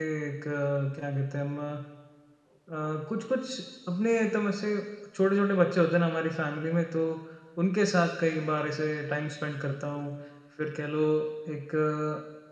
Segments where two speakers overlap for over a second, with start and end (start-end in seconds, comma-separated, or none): none